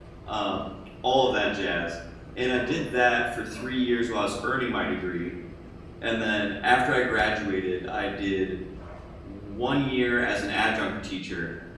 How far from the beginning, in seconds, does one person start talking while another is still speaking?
none

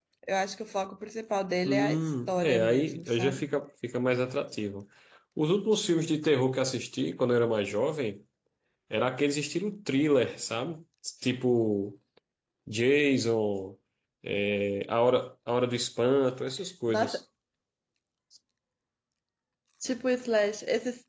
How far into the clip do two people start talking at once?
1.6 s

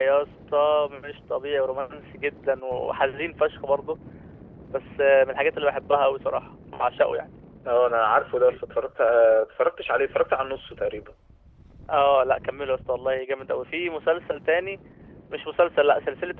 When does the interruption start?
none

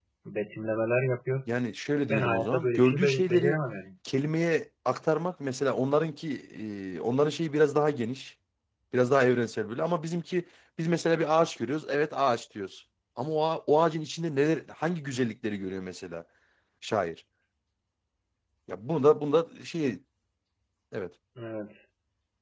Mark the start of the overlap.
2.1 s

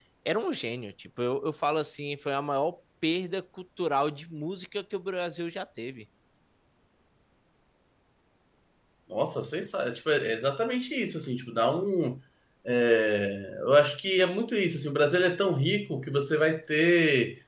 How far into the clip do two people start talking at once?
none

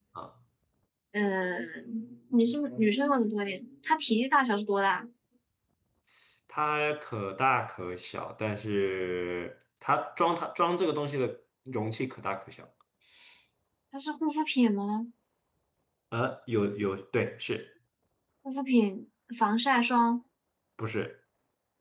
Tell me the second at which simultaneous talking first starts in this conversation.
none

